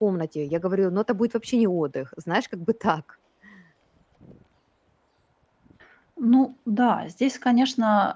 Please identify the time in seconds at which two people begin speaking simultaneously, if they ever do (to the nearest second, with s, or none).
none